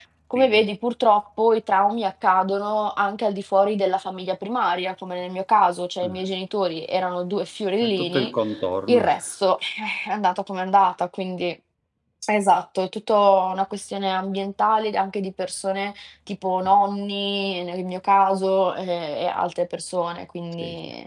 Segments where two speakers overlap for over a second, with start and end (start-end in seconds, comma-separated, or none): none